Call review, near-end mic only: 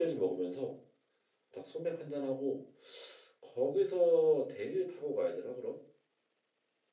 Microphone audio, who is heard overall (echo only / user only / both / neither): user only